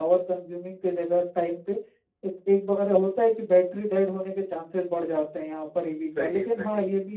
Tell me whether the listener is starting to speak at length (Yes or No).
No